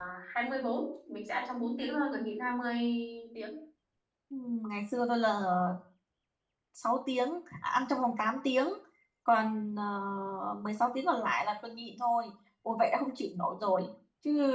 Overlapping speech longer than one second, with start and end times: none

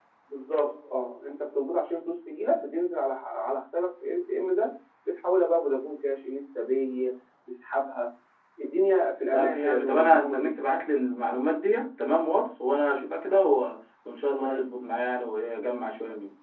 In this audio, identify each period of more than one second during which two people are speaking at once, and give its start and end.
9.3-10.6

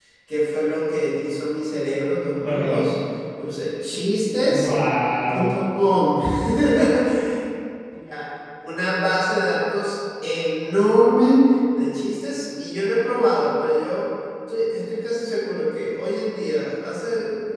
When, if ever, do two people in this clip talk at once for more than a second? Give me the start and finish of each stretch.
none

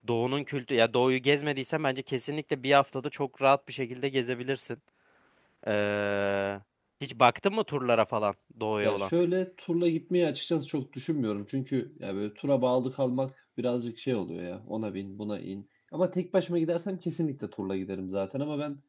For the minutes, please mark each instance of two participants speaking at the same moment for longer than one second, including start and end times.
none

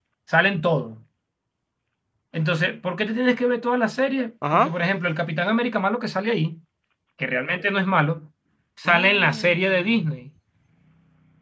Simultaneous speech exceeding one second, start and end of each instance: 8.8-10.1

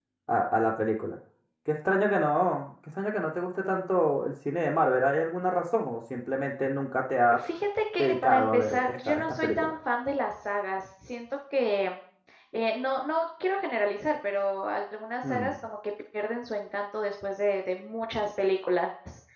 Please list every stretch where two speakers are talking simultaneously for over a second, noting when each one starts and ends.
8.0-9.7

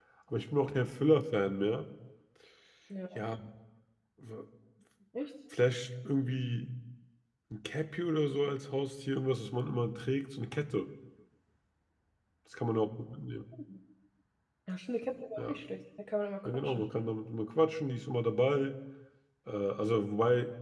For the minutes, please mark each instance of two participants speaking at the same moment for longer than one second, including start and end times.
none

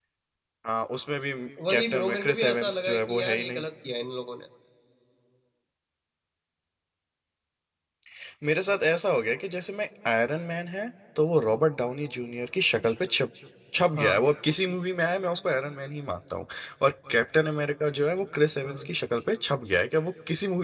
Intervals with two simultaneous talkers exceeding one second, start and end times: 1.7-3.6

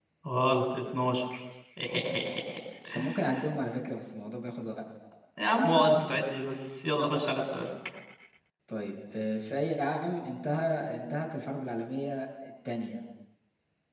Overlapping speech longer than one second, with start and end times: none

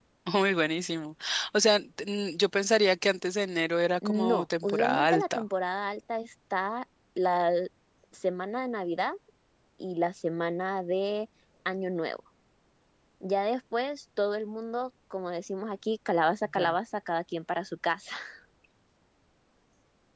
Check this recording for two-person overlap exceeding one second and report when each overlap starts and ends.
4.0-5.4

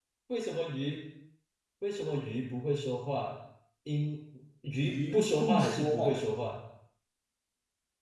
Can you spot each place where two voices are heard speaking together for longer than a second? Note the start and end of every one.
4.8-6.2

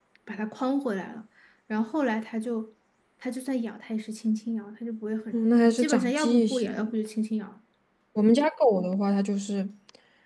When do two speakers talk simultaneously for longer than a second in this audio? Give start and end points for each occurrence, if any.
5.3-6.9

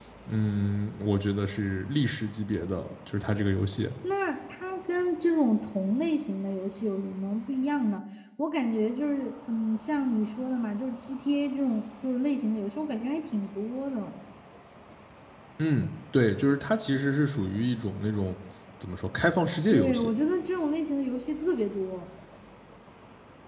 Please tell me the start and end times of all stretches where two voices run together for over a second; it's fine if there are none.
none

